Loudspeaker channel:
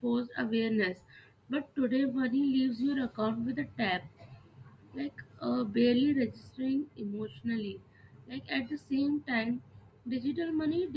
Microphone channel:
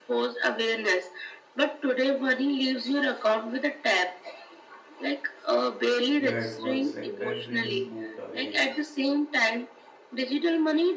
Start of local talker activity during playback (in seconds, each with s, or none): 6.1 s